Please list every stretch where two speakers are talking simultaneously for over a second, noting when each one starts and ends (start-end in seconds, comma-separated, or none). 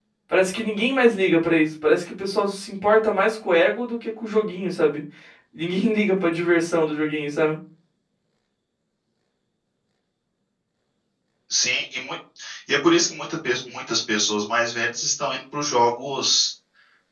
none